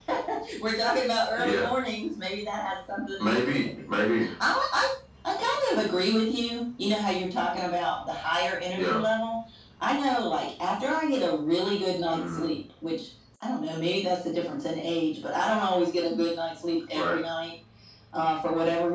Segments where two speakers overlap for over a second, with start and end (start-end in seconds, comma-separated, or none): none